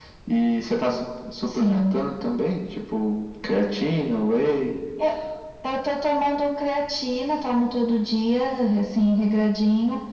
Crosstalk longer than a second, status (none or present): none